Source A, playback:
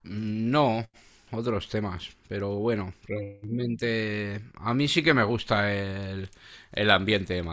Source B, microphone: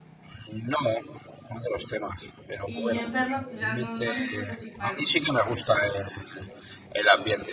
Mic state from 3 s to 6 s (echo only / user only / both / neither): both